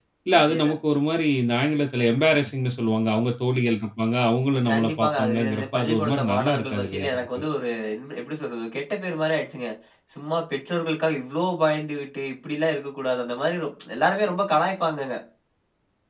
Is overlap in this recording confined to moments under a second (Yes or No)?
No